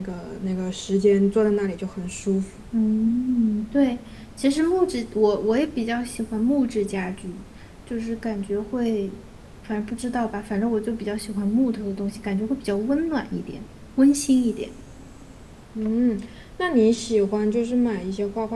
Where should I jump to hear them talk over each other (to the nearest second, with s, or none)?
none